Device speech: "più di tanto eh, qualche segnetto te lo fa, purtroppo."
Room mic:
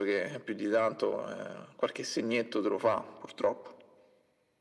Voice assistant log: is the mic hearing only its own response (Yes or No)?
Yes